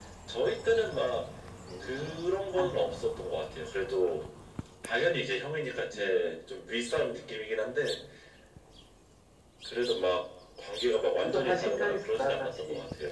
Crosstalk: present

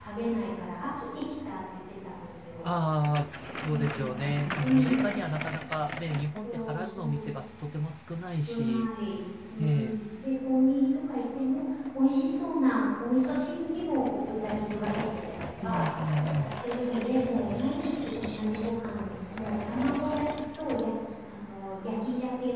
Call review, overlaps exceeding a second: present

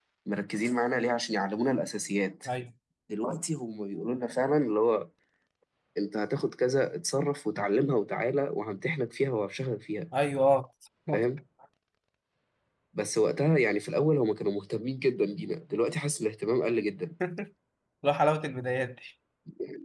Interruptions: none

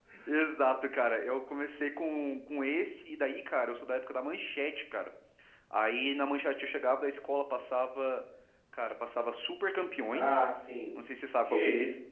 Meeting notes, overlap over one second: none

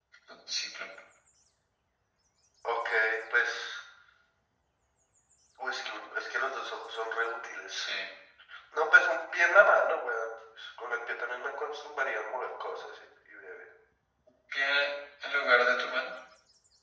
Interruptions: none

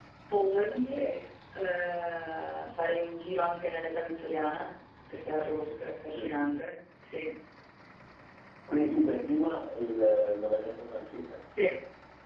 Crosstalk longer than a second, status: none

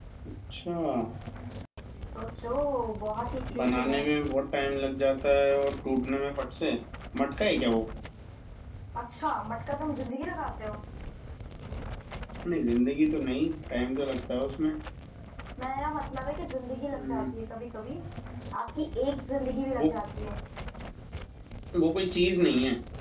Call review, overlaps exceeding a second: none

